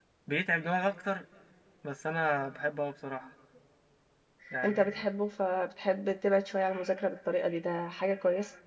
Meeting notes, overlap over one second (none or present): none